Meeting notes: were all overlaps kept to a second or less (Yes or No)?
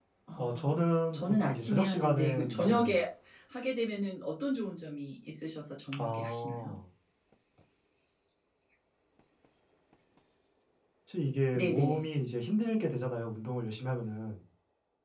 No